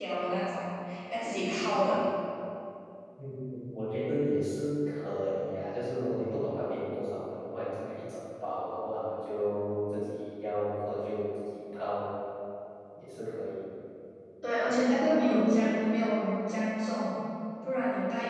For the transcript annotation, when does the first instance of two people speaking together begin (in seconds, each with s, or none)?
none